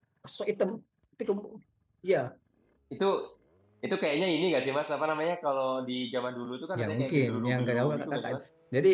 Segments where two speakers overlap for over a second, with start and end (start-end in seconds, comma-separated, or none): 6.8-8.3